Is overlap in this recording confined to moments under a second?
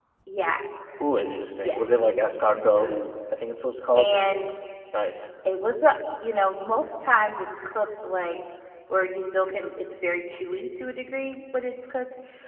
Yes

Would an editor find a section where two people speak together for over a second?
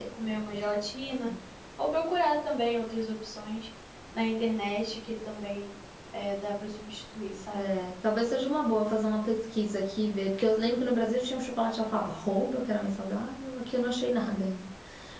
No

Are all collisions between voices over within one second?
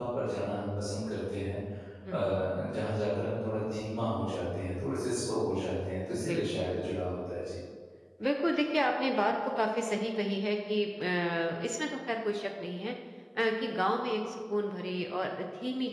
Yes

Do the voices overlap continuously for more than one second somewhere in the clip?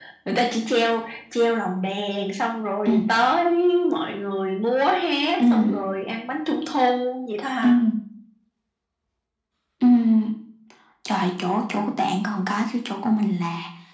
No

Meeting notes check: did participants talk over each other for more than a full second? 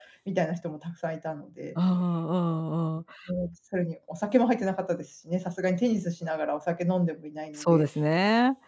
No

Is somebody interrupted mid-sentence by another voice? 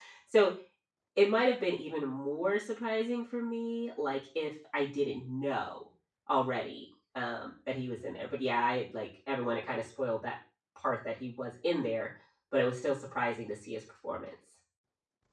No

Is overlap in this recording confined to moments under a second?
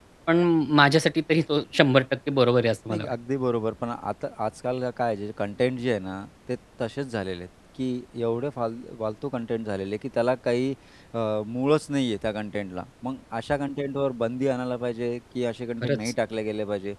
Yes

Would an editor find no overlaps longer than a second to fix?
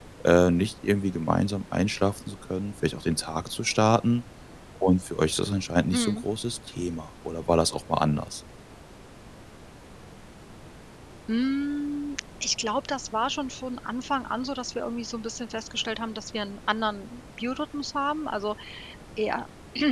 Yes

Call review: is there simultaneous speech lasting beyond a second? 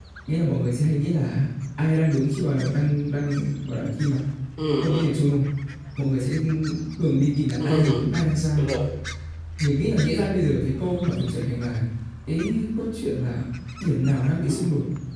No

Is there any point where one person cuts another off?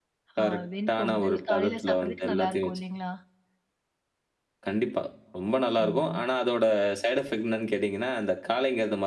Yes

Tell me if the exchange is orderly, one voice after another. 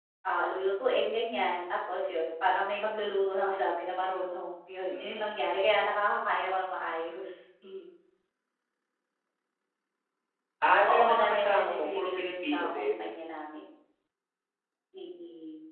No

